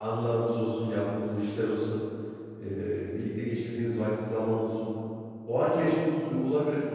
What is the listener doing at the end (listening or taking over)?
listening